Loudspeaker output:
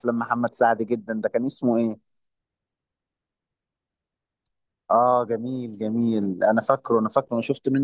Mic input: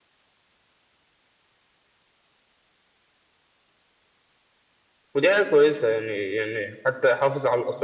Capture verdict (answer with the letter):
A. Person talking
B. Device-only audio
A